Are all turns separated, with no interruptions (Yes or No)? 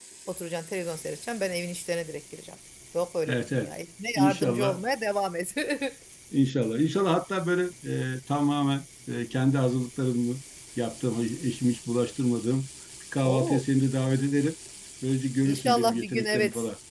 No